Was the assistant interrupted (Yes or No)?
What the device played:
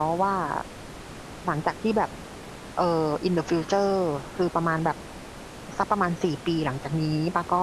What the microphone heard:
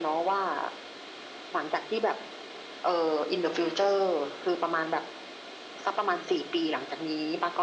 No